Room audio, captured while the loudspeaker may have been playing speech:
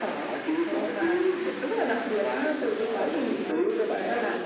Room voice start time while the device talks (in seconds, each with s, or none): none